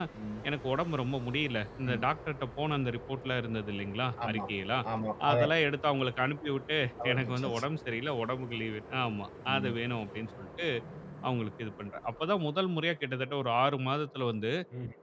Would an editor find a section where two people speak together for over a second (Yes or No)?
No